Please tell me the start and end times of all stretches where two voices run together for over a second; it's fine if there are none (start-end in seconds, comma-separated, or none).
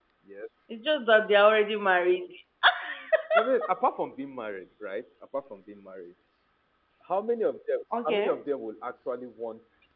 none